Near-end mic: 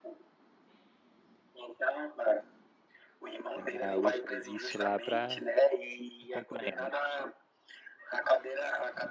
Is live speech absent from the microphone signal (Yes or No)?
No